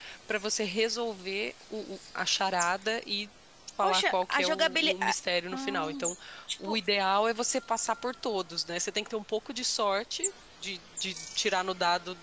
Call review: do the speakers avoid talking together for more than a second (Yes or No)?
No